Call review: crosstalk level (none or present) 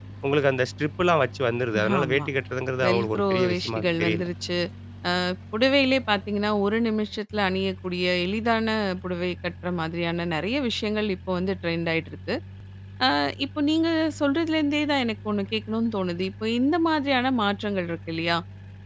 present